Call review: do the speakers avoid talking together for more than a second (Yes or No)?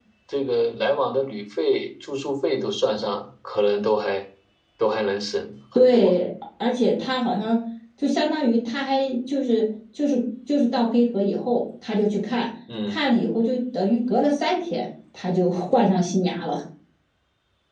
Yes